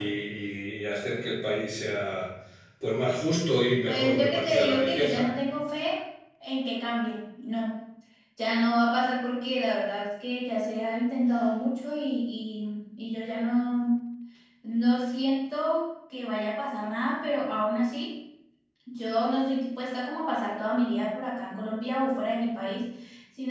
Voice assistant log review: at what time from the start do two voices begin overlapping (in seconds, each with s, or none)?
3.9 s